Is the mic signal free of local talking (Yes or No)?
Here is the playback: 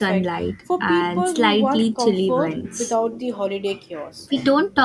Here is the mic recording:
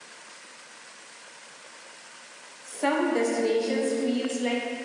No